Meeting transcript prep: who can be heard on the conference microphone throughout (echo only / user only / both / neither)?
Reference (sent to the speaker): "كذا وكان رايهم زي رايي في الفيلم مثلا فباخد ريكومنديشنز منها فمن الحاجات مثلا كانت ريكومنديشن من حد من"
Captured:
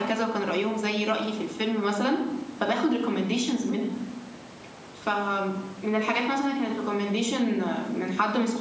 echo only